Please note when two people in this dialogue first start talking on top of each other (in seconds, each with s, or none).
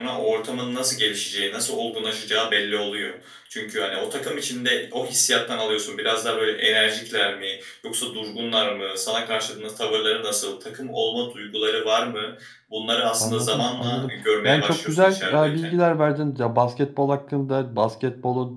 13.2 s